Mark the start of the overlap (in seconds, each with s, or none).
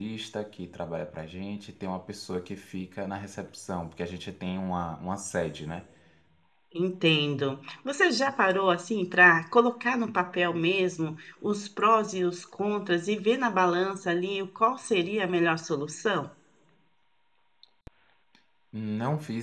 none